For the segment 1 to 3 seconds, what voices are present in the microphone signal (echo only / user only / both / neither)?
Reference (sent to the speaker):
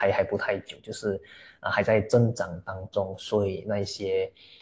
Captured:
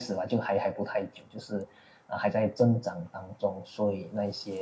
echo only